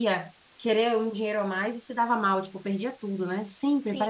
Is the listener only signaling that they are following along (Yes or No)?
No